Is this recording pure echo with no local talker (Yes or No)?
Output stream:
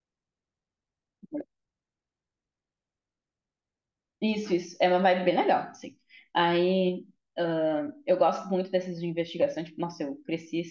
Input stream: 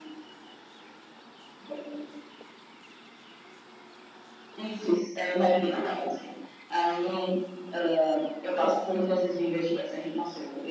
Yes